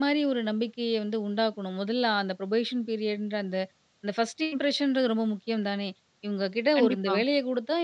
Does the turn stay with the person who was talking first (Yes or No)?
Yes